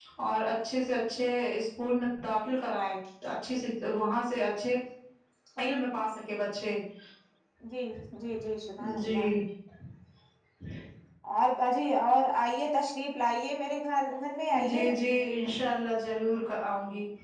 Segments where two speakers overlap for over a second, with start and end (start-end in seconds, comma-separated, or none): none